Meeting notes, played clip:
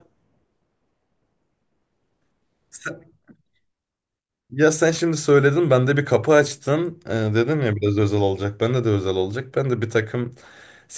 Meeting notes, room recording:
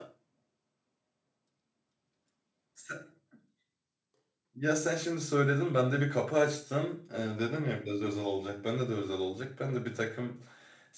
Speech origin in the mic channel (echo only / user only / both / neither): echo only